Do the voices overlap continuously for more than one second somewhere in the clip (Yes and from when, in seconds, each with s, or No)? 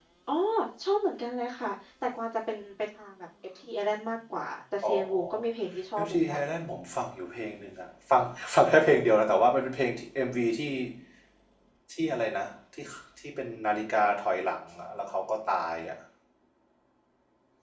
No